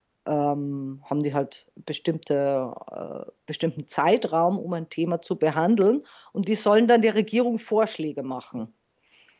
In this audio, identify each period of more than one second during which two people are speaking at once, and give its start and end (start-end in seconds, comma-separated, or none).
none